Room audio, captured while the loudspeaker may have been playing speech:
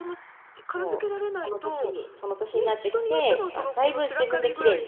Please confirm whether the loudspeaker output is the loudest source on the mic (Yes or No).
No